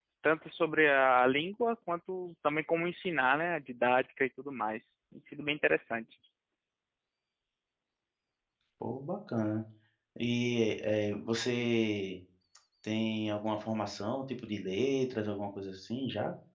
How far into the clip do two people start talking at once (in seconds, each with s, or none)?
none